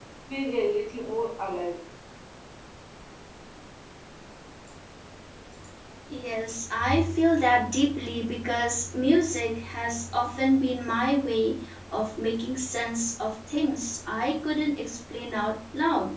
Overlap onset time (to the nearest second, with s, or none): none